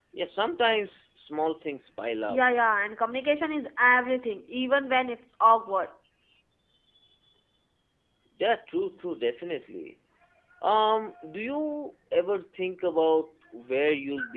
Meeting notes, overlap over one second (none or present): none